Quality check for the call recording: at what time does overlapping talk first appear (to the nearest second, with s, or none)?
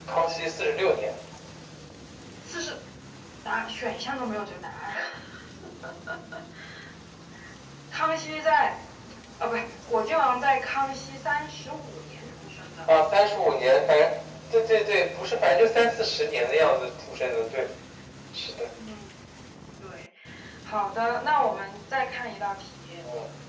none